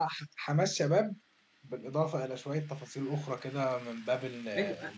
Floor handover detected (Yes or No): Yes